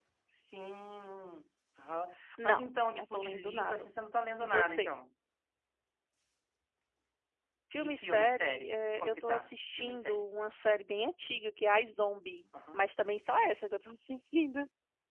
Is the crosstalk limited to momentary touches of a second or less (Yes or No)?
No